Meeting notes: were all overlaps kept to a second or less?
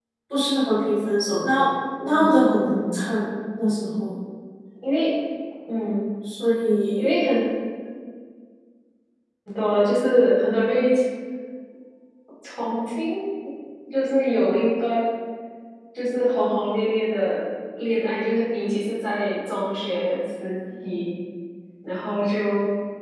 No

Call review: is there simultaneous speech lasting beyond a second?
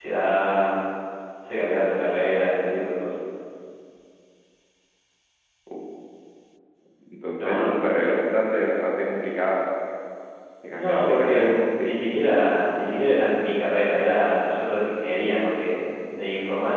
Yes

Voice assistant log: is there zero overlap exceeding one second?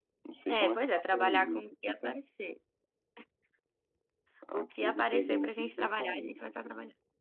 No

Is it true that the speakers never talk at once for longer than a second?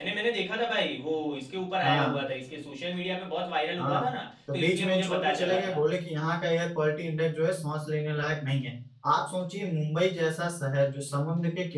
No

